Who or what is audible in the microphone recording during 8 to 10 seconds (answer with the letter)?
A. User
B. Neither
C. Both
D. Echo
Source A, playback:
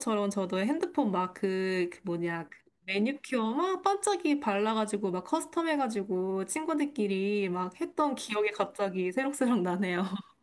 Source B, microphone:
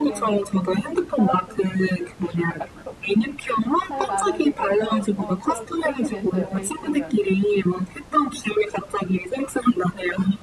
D